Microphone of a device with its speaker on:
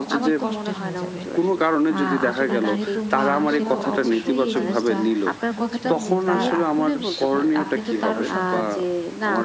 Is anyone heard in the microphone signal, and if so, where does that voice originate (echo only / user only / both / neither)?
both